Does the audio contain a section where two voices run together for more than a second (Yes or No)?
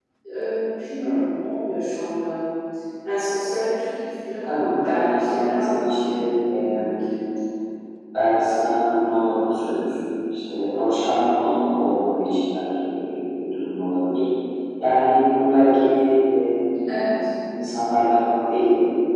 Yes